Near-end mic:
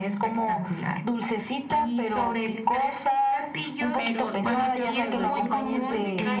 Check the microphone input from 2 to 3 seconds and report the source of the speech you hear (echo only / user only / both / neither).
echo only